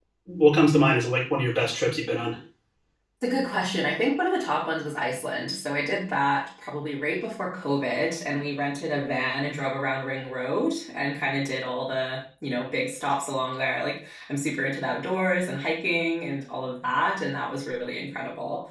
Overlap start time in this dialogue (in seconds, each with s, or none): none